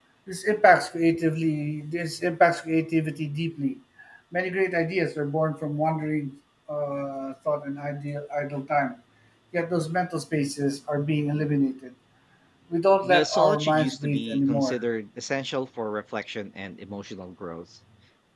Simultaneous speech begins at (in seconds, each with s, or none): 13.0 s